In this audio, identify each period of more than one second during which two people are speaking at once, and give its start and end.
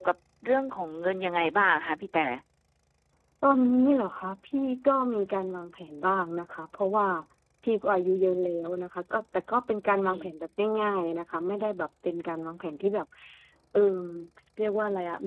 none

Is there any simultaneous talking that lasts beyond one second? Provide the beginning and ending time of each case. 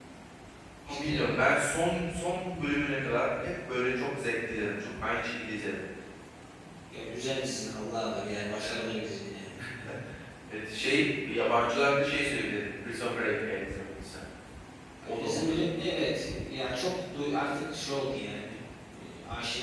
none

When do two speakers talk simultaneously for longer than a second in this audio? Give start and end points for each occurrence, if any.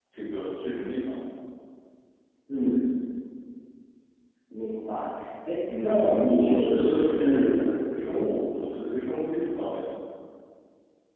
5.8-7.7

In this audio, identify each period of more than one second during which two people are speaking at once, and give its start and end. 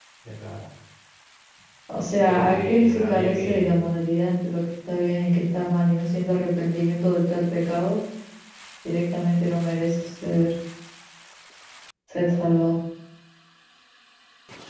2.2-3.8

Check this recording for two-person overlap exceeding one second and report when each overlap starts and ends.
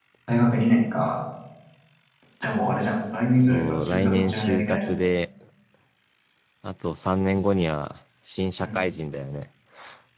3.5-4.9

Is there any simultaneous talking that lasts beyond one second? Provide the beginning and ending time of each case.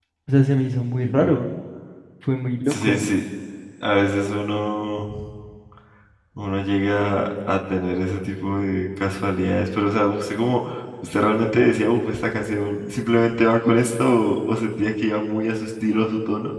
none

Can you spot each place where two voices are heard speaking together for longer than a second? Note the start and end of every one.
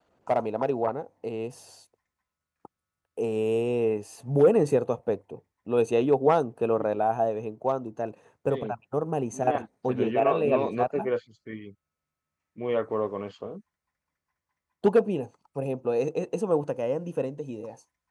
9.3-11.1

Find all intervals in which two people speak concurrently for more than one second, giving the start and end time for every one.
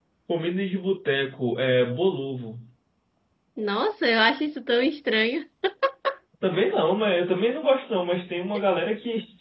none

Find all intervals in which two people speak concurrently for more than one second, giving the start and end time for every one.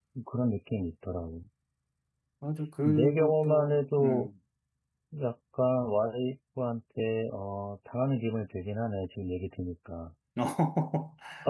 2.9-4.3

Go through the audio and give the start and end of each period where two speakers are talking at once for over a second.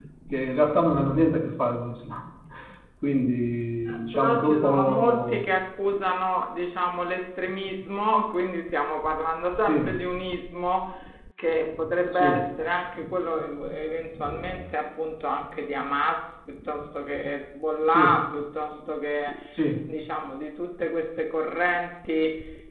4.1-5.4

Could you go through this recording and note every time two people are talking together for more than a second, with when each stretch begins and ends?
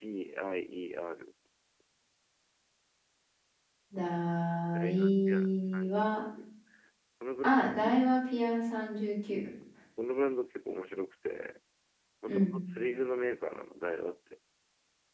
4.7-6.0

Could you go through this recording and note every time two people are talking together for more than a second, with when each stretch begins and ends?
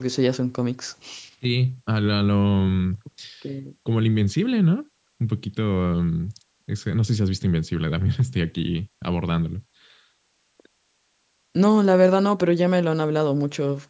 none

